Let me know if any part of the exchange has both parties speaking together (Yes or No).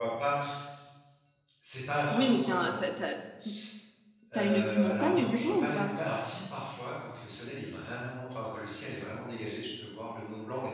Yes